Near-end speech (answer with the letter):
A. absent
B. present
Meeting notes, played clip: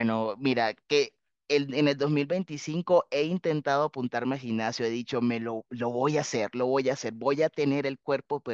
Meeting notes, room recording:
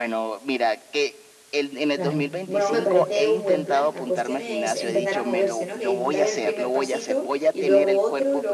B